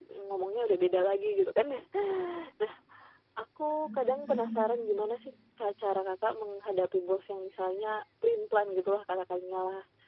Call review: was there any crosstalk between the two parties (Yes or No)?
No